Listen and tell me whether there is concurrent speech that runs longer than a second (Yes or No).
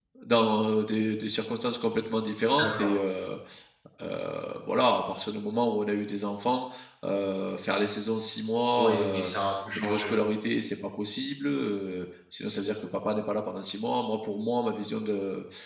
No